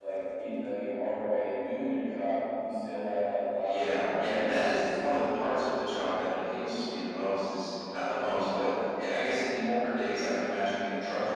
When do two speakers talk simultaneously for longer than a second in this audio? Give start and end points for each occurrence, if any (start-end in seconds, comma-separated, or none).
3.6-5.5